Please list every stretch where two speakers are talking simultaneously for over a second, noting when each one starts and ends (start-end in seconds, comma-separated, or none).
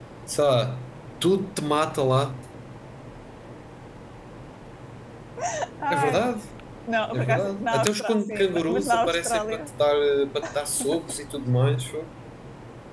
7.1-9.6